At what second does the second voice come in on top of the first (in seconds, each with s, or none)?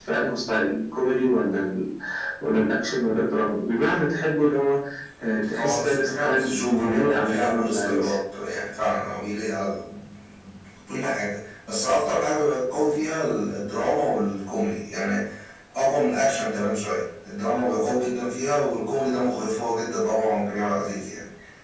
5.6 s